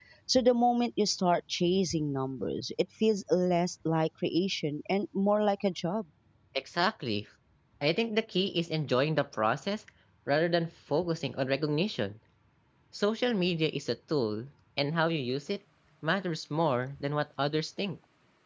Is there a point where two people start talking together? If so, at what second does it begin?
none

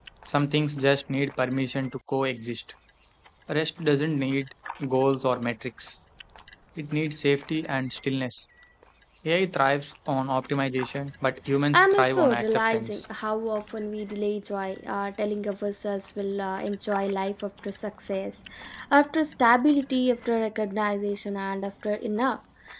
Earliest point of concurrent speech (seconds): 11.7 s

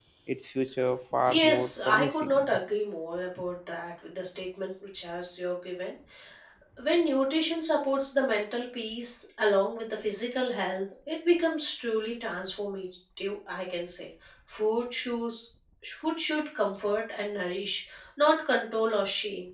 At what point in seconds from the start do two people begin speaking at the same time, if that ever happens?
1.3 s

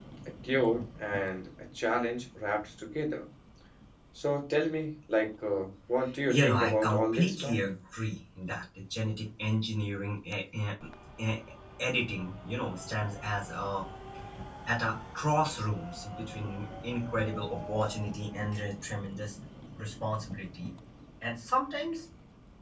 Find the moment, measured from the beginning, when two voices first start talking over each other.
6.3 s

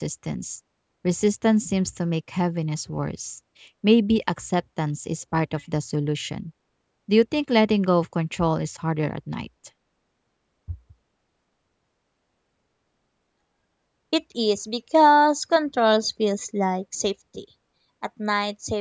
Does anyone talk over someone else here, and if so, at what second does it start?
none

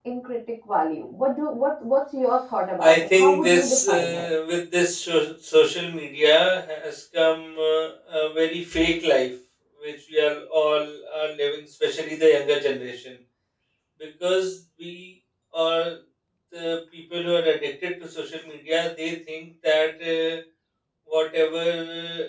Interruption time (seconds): 2.8 s

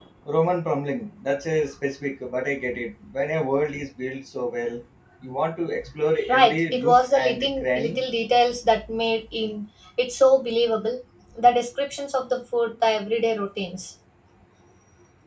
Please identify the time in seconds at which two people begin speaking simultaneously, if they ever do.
6.3 s

